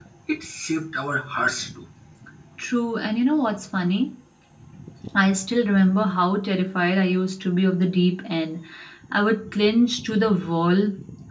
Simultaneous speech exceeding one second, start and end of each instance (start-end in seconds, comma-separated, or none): none